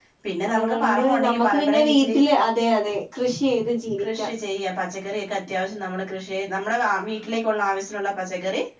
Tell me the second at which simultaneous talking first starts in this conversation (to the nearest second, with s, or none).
1 s